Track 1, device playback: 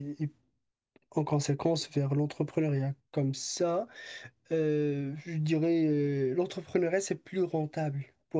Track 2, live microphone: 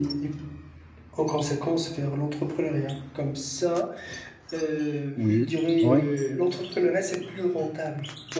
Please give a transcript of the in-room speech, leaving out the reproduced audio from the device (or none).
oui. ouais